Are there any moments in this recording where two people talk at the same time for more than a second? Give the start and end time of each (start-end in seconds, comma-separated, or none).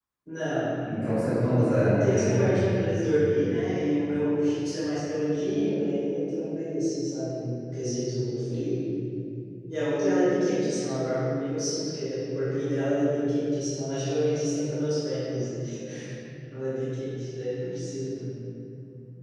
1.0-2.5